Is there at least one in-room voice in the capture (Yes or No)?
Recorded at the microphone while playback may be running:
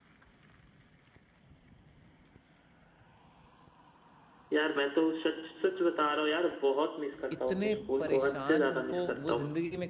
Yes